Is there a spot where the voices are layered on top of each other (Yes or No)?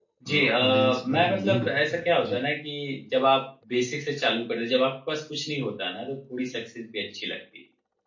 Yes